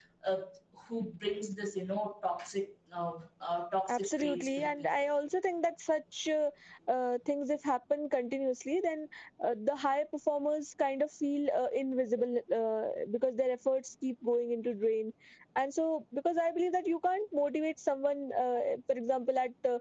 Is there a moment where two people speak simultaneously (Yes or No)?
Yes